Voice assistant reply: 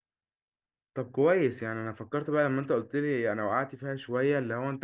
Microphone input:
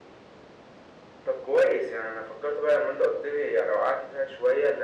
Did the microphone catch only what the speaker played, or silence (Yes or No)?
Yes